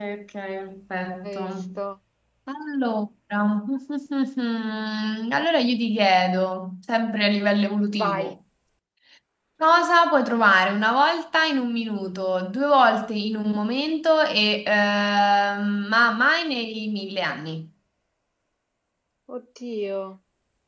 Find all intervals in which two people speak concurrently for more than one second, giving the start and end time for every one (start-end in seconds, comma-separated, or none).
none